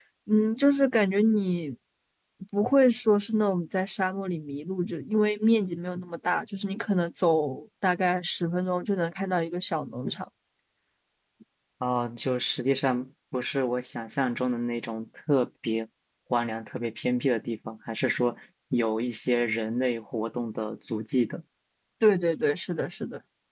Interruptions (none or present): none